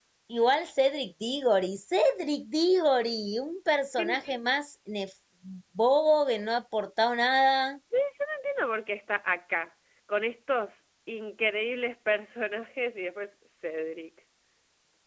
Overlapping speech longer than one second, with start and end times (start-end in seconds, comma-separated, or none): none